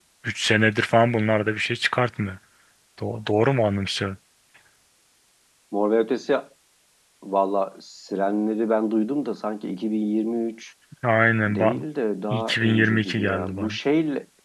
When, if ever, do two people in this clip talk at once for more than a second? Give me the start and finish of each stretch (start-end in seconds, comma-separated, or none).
12.3-13.8